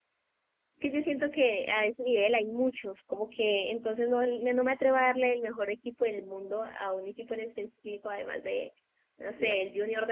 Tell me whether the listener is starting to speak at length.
No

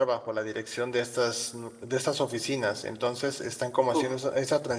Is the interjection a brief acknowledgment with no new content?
Yes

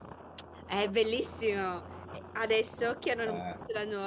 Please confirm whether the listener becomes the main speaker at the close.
No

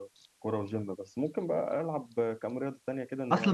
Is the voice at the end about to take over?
Yes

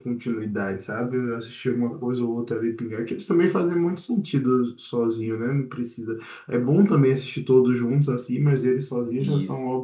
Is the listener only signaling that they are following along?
Yes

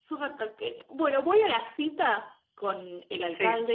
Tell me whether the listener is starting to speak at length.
No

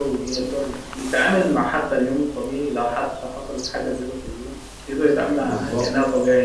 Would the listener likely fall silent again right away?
No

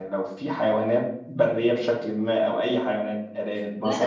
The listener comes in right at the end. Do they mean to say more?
Yes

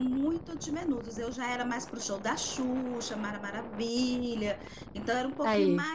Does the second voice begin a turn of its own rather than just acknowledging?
No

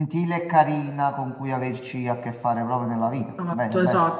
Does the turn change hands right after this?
Yes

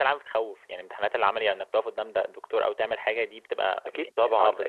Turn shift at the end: Yes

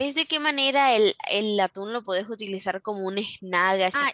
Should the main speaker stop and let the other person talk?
Yes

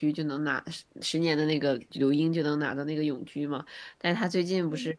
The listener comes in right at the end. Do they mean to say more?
No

